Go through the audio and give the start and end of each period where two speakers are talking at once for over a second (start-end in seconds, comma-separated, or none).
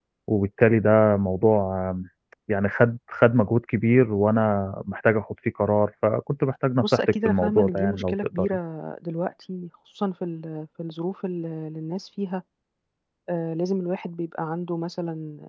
6.8-8.5